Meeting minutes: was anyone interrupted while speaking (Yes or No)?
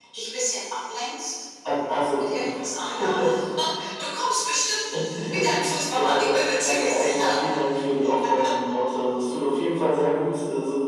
Yes